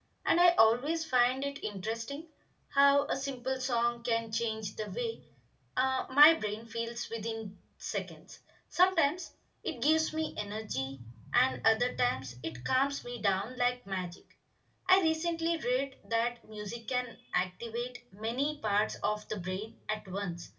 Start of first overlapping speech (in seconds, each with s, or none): none